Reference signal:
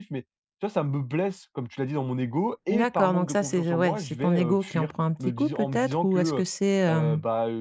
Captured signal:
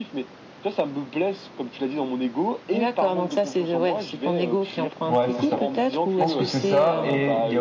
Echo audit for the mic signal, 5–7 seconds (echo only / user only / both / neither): both